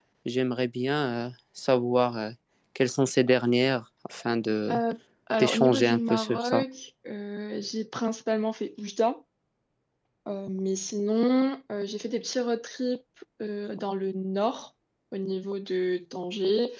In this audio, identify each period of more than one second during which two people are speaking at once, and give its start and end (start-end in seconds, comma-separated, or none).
5.4-6.6